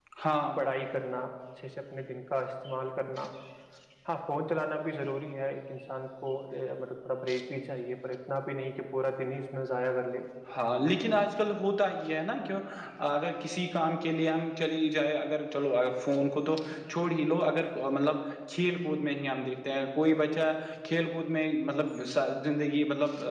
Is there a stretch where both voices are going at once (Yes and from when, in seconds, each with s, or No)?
No